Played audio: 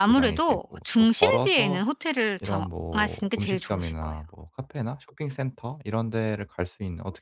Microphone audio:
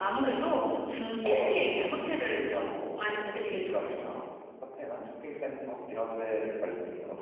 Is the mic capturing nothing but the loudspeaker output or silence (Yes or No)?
Yes